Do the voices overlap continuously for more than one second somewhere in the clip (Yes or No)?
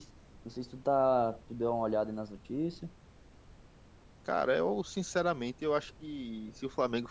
No